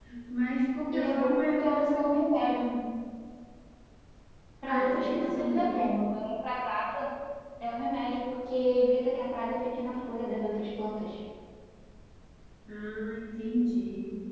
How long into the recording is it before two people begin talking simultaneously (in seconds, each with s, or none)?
0.9 s